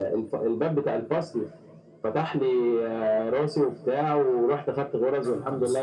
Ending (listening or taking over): listening